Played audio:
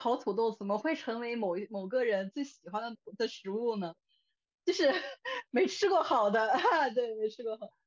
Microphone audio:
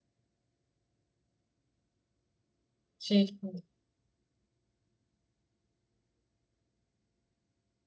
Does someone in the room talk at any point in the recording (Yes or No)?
Yes